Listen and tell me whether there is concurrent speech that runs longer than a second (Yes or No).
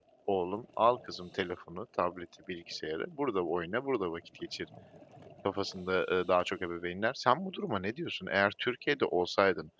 No